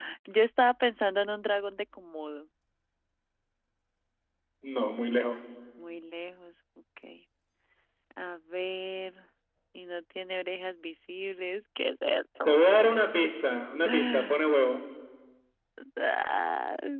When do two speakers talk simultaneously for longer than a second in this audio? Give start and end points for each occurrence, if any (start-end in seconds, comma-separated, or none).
none